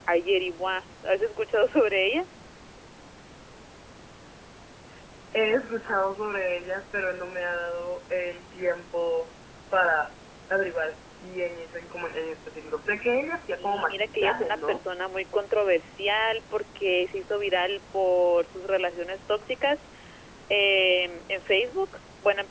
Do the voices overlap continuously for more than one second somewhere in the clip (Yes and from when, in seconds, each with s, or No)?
Yes, from 13.6 s